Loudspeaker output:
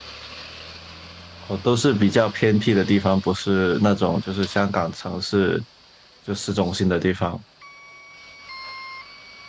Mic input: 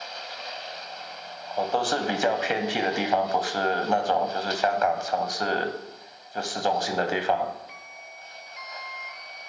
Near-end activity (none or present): none